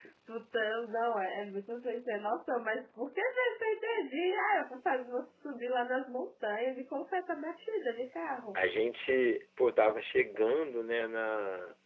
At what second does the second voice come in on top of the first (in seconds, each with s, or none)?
none